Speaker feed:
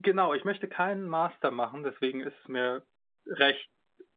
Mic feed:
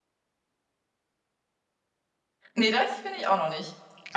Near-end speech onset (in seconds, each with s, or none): 2.5 s